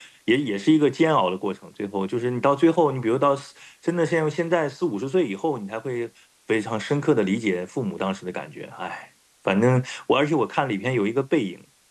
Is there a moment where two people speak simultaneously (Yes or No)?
No